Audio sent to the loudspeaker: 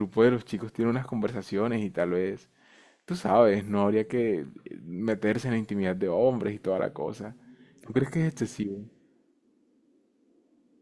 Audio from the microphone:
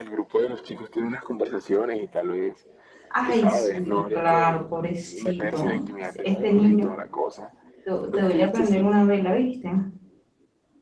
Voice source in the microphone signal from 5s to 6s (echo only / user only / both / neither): both